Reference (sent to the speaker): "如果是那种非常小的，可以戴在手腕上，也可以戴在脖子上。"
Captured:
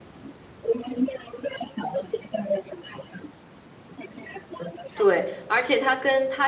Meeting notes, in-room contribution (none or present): present